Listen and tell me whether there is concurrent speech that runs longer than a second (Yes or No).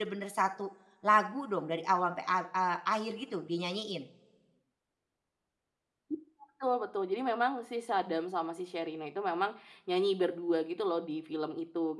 No